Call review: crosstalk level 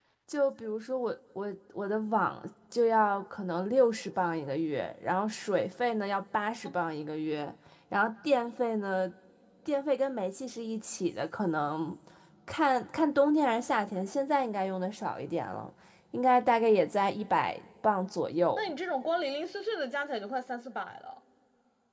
none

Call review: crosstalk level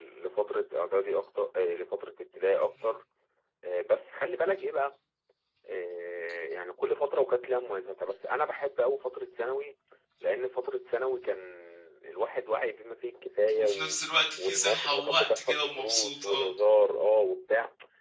present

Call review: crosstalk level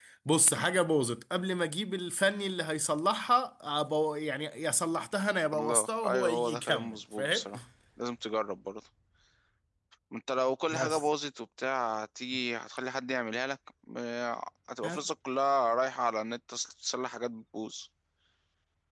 present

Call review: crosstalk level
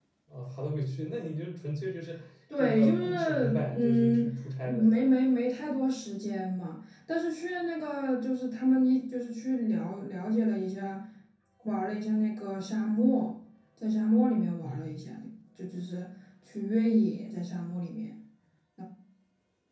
present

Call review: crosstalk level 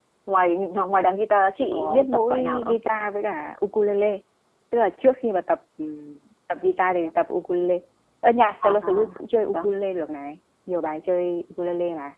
present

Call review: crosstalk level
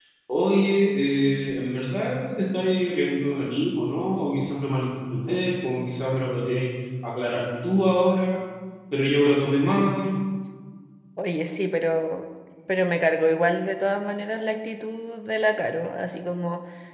none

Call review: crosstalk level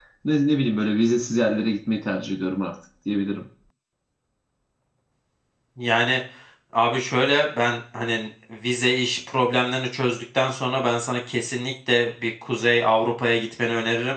none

